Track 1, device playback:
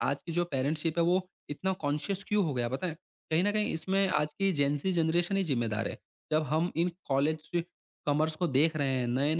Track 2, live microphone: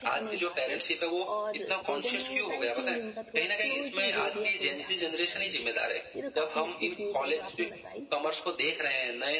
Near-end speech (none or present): present